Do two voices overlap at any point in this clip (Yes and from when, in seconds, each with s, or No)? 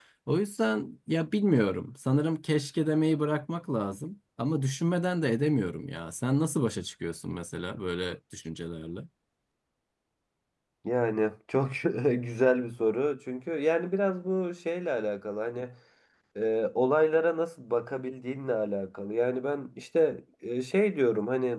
No